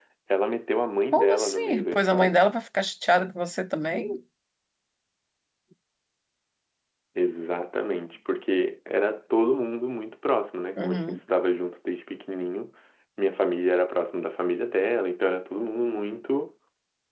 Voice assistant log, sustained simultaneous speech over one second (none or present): present